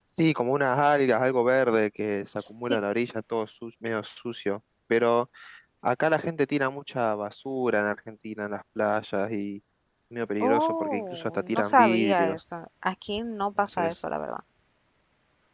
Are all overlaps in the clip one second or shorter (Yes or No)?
No